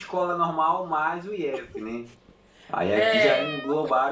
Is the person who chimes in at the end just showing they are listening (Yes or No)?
Yes